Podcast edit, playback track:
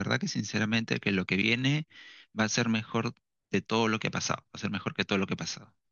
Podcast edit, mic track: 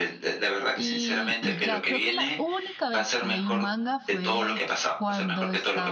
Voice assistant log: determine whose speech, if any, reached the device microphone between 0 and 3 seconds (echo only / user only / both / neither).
both